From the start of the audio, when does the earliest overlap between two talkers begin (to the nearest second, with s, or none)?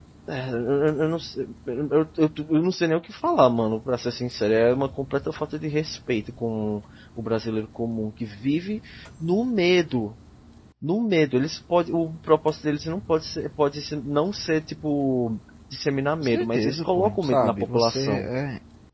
16 s